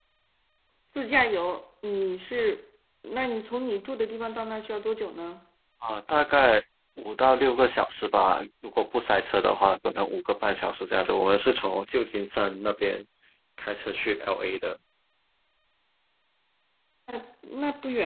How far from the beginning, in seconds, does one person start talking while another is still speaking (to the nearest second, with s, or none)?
none